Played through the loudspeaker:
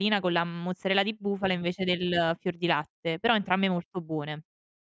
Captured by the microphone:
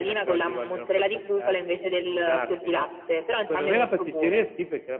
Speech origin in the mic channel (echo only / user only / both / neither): both